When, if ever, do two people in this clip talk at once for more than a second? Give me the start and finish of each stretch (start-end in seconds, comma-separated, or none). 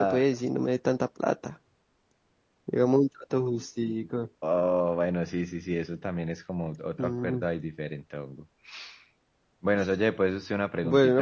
none